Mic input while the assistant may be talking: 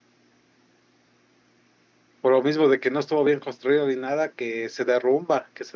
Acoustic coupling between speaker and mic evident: No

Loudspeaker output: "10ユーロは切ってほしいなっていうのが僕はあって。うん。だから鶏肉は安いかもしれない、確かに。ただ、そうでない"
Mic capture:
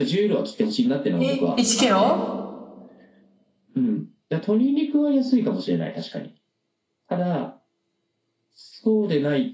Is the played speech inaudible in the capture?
No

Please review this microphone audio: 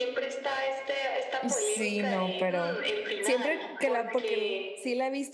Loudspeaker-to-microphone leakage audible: Yes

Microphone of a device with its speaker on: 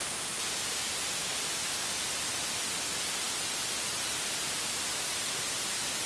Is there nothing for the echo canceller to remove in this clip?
Yes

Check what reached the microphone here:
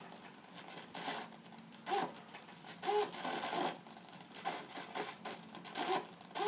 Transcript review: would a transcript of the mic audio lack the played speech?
Yes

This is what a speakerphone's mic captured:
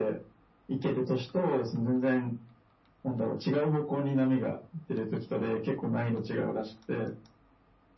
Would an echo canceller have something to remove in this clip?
Yes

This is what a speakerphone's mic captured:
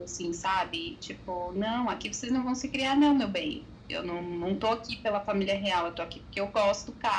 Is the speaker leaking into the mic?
Yes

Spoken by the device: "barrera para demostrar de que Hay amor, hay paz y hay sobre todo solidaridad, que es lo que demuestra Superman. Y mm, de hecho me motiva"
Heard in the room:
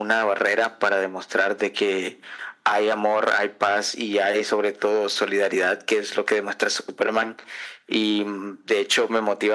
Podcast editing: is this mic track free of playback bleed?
No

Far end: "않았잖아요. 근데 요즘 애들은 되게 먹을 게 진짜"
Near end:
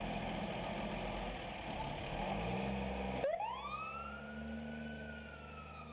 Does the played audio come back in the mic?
No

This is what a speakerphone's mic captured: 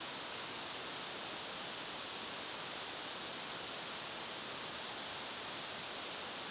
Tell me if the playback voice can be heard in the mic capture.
No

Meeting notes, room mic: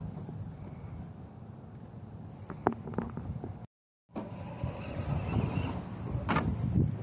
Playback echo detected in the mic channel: No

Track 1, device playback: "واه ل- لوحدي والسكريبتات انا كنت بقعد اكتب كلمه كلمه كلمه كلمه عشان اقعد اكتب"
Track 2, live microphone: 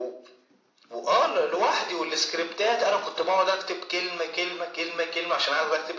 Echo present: Yes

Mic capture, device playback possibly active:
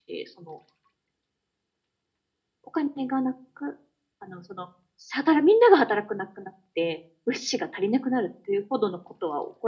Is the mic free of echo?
Yes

